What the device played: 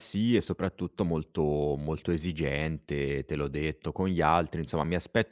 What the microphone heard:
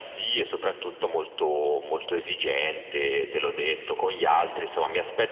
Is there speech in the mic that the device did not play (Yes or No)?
No